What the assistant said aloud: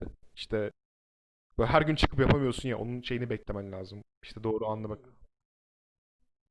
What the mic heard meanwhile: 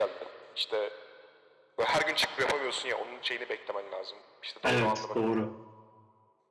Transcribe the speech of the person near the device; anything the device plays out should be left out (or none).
Evet doğru.